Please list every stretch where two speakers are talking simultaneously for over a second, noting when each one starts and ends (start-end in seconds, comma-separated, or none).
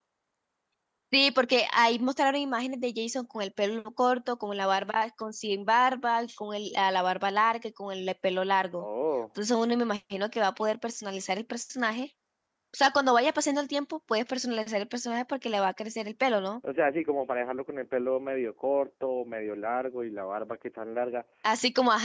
none